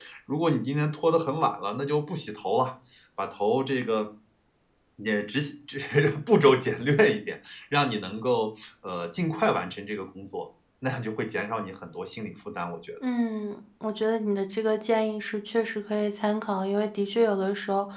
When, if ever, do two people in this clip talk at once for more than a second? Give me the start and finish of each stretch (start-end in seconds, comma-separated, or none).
none